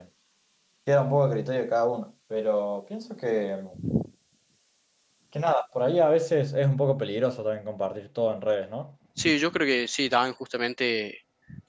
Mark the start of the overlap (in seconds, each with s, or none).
none